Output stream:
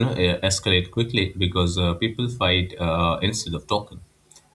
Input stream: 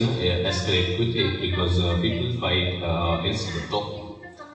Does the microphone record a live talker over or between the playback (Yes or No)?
Yes